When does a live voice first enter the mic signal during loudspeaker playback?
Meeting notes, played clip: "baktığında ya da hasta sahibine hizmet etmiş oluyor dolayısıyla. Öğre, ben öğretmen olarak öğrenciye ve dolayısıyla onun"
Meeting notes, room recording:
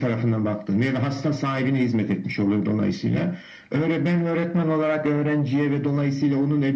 none

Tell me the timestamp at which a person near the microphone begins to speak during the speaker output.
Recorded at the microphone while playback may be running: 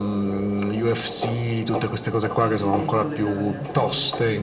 2.3 s

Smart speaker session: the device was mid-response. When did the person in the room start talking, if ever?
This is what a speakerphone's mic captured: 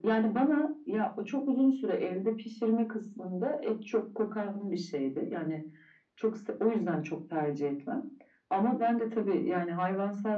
none

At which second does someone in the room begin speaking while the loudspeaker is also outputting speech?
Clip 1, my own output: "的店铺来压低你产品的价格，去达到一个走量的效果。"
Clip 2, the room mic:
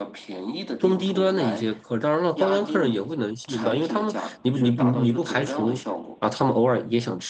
0.8 s

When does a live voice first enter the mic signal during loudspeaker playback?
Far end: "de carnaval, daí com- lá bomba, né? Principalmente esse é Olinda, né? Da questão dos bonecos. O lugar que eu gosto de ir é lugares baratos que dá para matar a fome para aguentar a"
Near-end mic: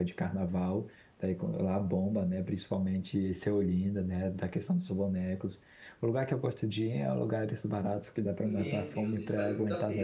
8.4 s

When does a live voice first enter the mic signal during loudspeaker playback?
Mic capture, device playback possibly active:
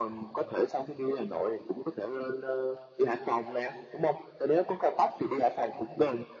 none

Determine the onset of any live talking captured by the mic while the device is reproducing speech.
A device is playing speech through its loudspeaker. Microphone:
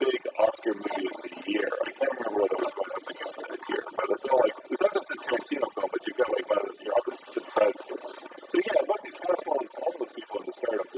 none

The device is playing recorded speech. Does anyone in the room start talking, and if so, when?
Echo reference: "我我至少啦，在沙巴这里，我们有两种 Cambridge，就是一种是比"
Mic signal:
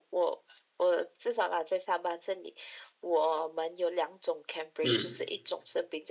4.8 s

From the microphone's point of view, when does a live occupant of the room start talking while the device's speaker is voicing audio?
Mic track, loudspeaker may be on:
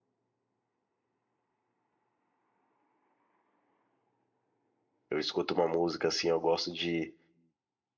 5.1 s

